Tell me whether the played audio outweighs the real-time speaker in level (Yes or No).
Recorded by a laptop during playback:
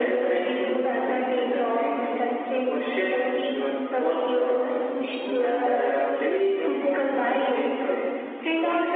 Yes